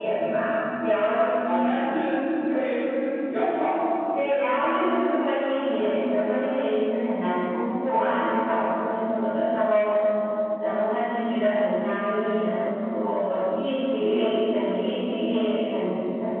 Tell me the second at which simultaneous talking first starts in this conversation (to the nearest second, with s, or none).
none